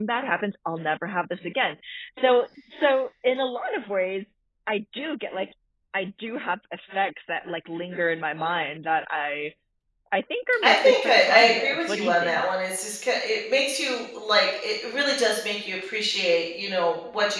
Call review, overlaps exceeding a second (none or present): present